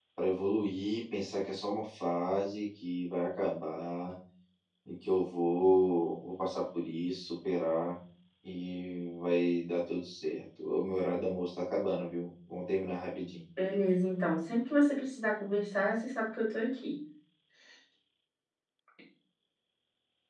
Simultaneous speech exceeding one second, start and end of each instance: none

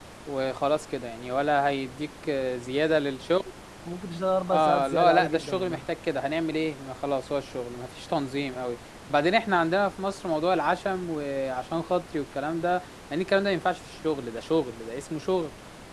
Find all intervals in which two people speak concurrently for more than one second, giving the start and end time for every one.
4.5-5.8

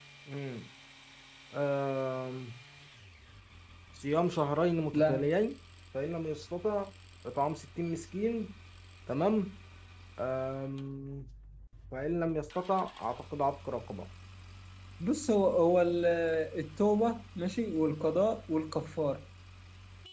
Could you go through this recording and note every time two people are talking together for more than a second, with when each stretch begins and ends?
none

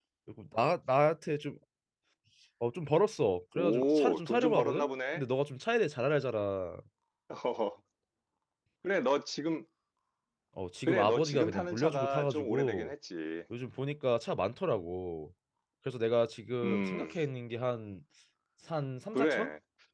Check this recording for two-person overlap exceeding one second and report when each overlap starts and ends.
3.6-5.2, 10.9-12.9

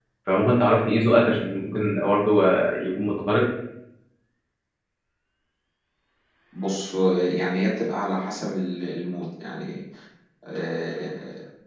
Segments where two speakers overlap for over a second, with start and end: none

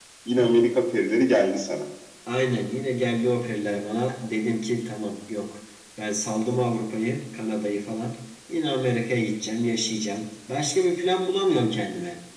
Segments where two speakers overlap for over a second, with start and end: none

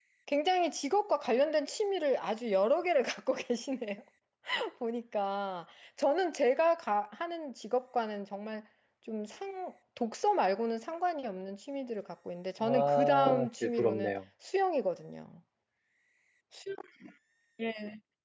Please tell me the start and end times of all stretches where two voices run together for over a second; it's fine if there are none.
12.6-14.1

